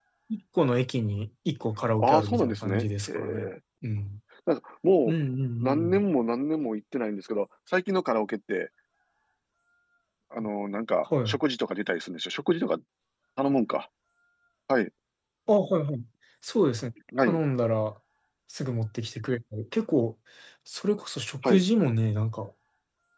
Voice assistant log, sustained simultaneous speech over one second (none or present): present